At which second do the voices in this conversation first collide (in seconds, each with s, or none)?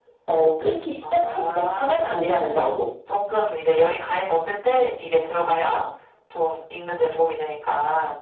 1.0 s